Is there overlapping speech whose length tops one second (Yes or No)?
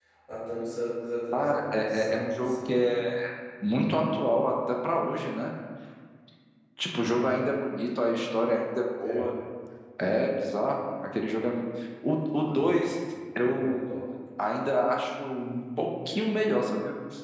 Yes